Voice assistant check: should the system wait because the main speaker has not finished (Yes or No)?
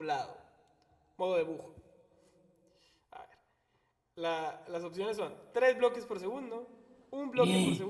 Yes